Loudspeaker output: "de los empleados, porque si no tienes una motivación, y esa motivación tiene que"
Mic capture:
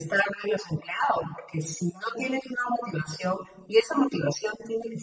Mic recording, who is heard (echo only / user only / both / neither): echo only